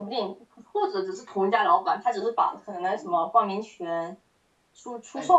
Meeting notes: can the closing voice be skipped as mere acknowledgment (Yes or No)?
No